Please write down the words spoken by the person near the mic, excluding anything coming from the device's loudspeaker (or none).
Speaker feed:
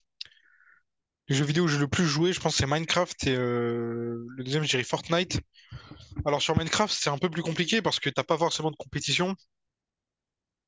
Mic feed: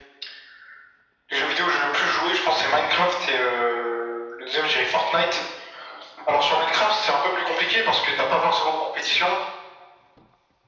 none